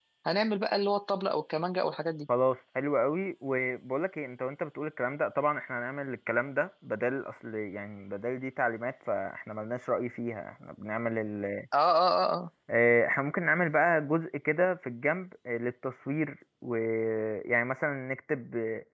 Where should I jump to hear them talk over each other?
none

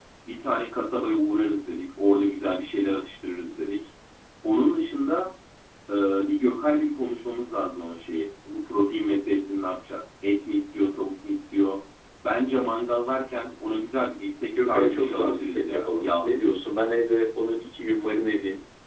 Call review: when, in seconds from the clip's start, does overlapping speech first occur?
14.6 s

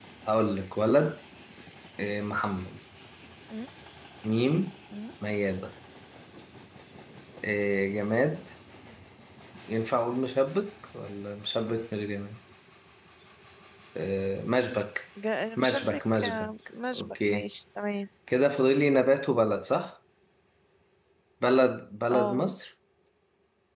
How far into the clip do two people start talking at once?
15.6 s

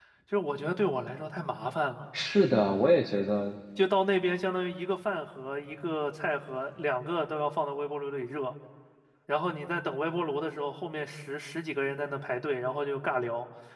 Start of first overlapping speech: none

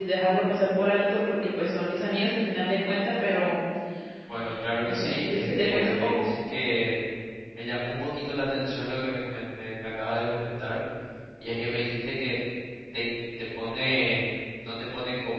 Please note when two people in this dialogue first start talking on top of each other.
4.8 s

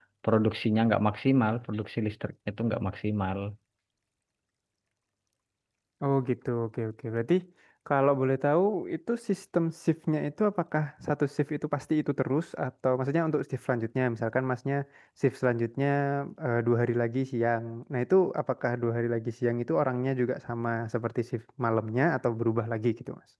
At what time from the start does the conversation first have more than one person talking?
none

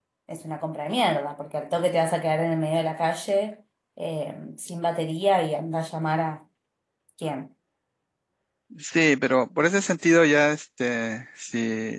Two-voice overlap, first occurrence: none

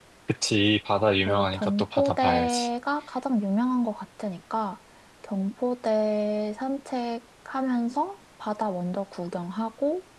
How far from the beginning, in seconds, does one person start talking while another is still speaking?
1.2 s

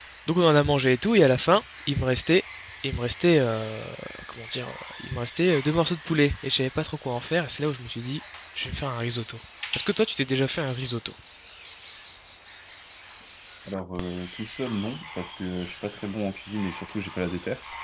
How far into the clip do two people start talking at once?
none

